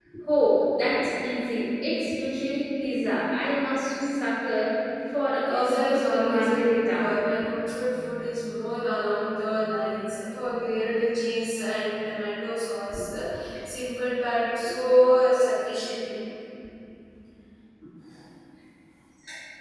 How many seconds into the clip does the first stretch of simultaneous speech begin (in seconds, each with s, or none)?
5.5 s